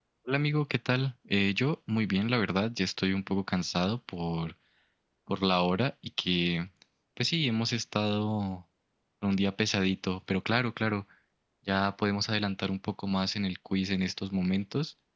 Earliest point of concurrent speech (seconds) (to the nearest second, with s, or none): none